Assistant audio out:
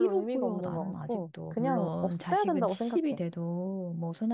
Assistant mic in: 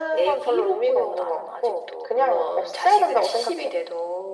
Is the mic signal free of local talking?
Yes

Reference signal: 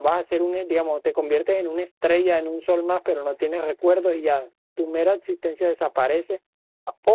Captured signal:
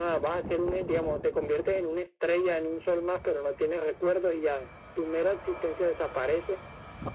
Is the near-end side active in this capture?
No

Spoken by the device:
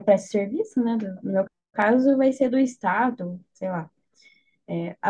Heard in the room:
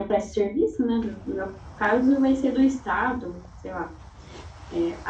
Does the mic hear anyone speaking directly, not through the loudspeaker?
No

